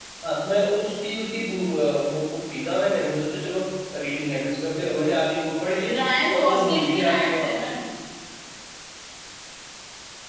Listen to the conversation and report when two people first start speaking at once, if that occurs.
6 s

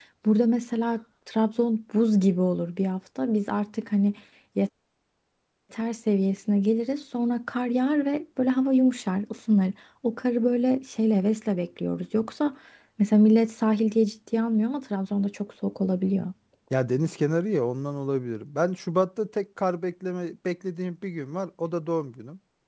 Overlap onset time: none

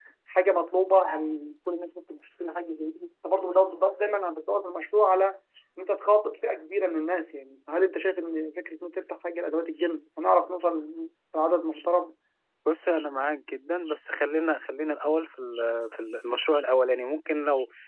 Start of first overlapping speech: none

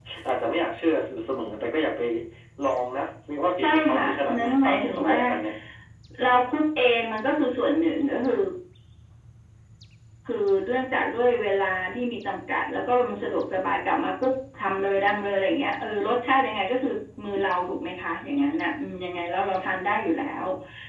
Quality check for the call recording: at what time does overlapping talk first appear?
4 s

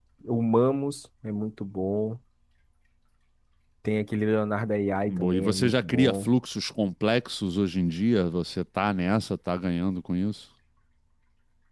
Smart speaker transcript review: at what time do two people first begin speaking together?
5 s

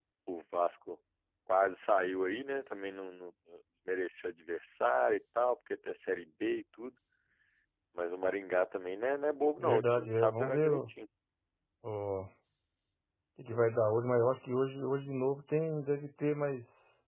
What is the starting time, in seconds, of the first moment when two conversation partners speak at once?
10 s

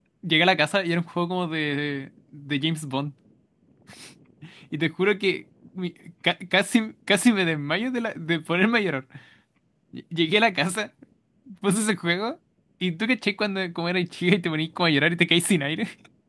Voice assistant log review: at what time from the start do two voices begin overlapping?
none

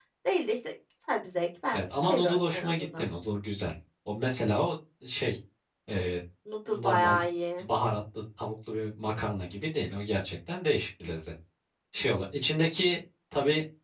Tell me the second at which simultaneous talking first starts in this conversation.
2 s

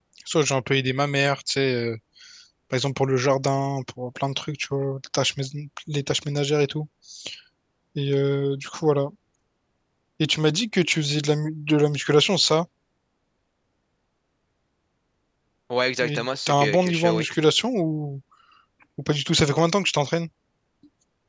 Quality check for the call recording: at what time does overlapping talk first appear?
16 s

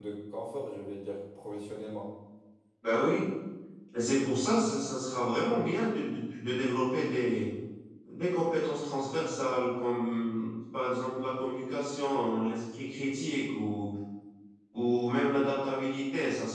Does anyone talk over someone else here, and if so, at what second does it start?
none

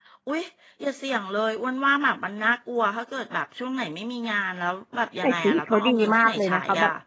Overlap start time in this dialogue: 5 s

